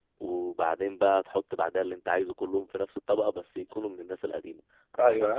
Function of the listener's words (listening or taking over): taking over